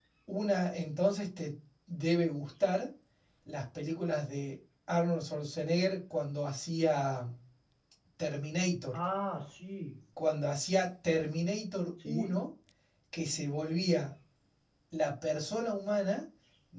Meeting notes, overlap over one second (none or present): none